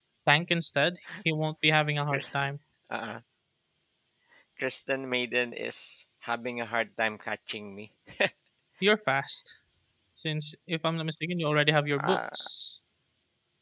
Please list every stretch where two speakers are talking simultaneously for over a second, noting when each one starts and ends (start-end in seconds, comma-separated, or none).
none